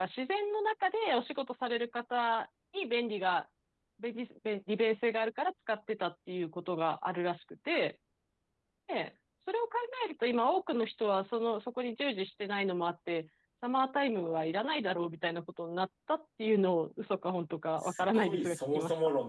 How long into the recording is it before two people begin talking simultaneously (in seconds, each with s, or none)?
17.8 s